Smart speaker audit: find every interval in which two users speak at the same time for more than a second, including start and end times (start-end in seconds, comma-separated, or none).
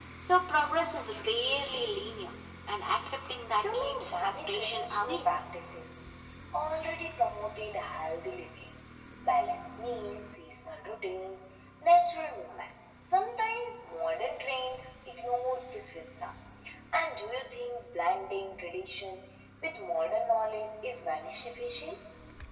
3.6-5.3